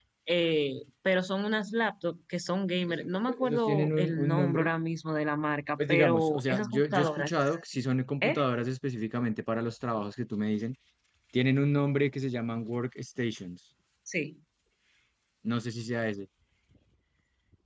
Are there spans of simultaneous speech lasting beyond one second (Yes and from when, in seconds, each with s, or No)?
Yes, from 2.9 s